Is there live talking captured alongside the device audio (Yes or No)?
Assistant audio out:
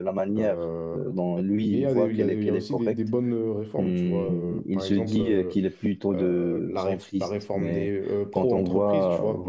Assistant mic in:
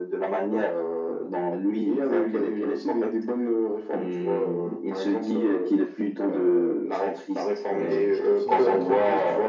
Yes